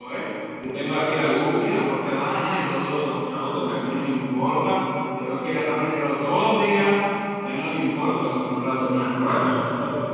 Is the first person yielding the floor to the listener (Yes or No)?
Yes